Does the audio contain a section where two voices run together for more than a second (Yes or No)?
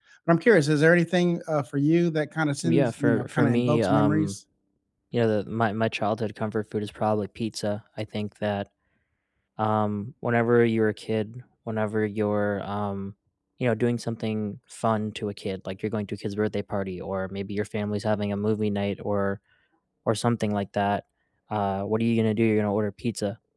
Yes